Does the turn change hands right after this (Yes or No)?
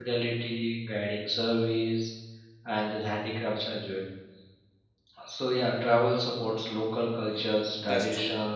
No